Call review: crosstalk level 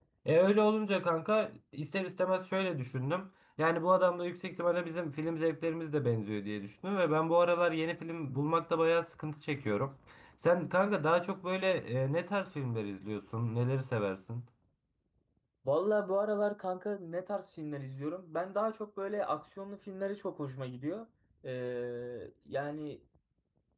none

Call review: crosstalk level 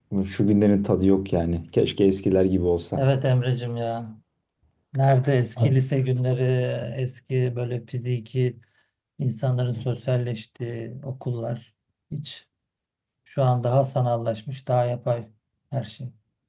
none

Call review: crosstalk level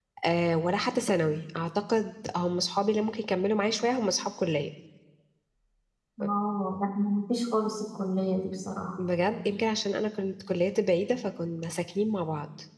none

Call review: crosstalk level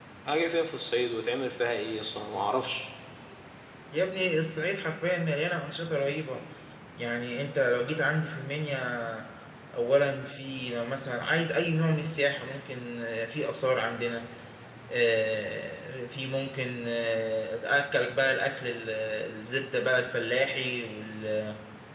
none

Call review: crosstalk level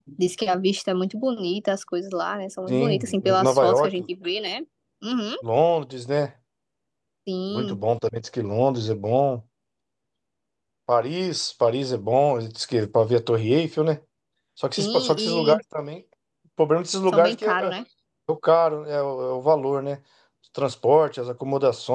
present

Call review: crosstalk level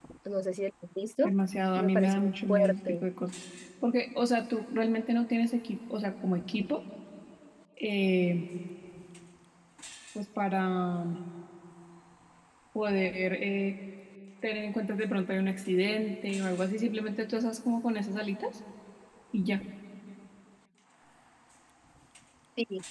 present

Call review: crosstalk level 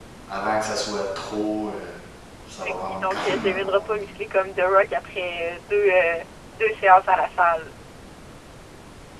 present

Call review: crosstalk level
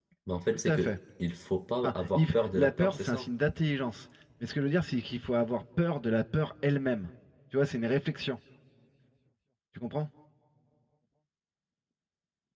present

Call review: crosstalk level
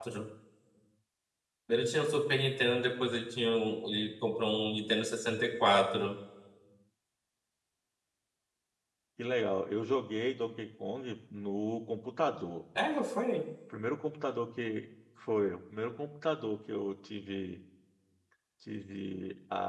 none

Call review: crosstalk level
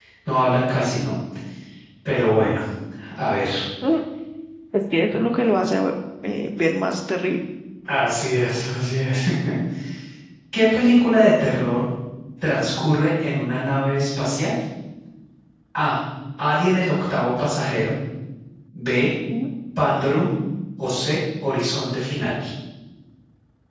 none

